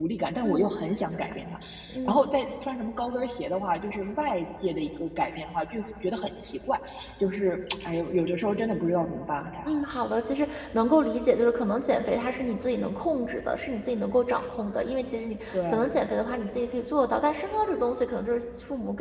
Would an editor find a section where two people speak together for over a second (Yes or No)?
No